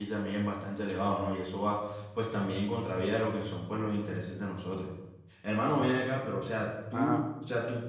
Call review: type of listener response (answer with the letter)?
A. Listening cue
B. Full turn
A